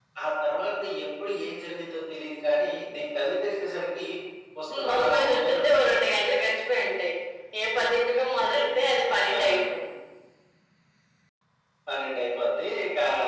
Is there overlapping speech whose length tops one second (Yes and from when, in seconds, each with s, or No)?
Yes, from 4.8 s